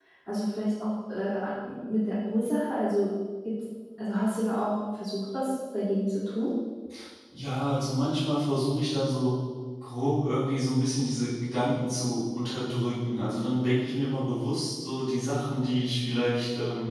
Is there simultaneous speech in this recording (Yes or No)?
No